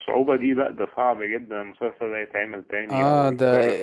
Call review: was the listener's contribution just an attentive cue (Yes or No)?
No